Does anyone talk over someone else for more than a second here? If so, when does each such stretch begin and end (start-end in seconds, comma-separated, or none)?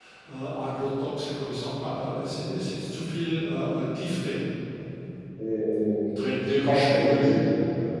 6.1-7.5